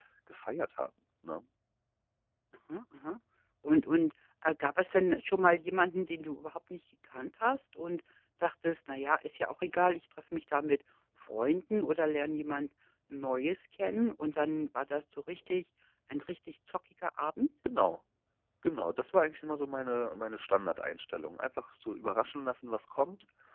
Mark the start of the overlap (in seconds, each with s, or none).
none